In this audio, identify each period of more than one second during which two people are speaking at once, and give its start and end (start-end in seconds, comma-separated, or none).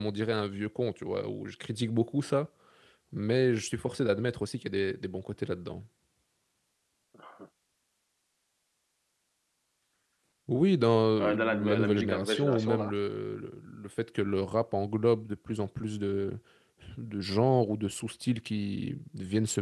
11.2-12.9